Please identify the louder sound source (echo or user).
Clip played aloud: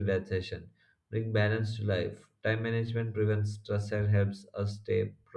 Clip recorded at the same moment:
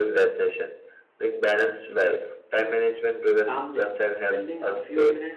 echo